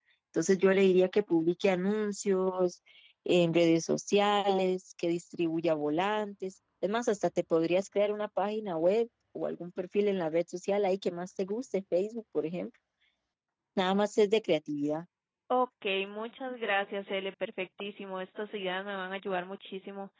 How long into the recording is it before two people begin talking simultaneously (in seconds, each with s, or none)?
none